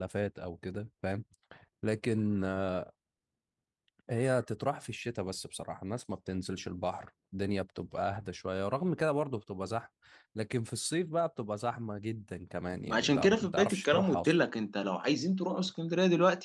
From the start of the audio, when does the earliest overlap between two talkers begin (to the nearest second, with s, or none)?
13 s